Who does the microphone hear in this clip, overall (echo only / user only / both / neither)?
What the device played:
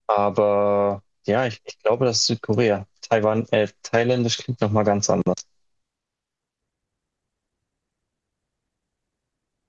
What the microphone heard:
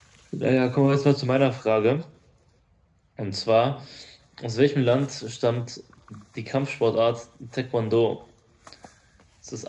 user only